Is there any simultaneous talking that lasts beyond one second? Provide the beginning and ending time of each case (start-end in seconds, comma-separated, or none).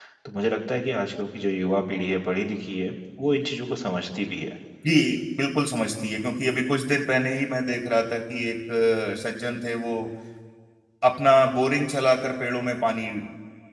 none